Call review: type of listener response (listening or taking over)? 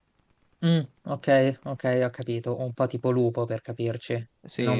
taking over